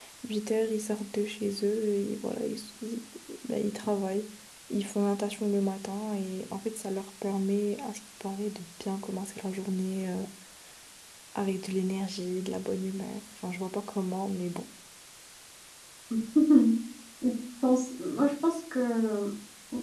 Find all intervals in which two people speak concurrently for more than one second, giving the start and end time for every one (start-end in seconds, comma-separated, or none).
none